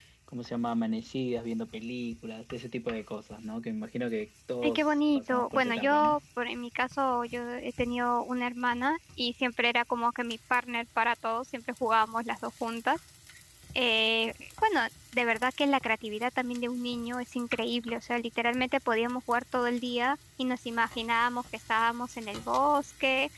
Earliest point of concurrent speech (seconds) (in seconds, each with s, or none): 4.6 s